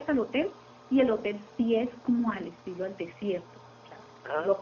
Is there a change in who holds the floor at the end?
No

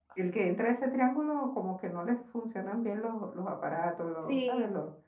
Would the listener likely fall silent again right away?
Yes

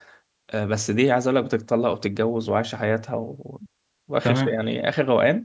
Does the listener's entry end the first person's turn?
No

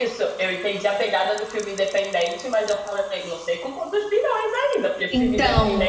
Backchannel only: Yes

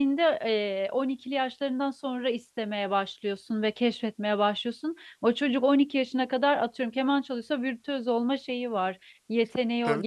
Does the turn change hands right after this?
Yes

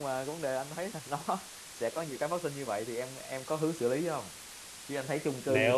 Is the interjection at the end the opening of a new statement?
No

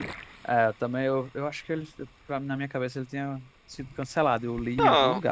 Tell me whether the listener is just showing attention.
No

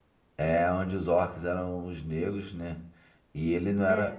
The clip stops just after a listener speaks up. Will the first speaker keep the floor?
Yes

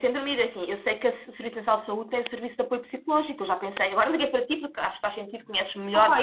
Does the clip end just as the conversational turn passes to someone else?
Yes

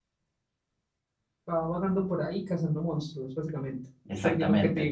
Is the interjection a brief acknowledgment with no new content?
No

